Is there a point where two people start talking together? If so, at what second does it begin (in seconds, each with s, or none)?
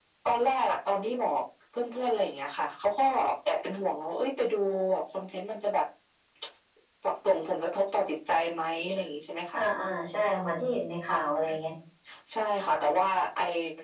none